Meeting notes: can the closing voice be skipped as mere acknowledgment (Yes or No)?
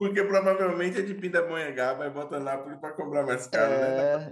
No